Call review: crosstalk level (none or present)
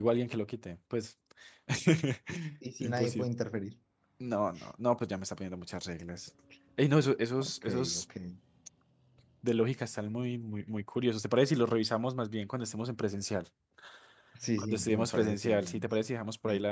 present